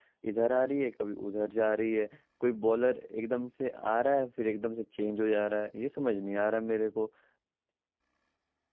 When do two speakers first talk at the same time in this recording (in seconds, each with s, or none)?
none